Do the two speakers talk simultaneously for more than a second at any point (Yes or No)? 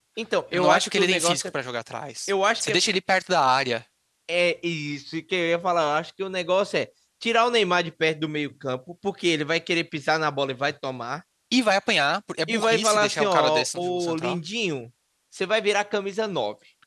Yes